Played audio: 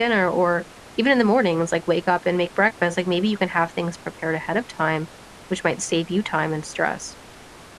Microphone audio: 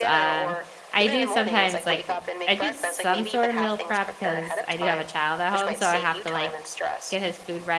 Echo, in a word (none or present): present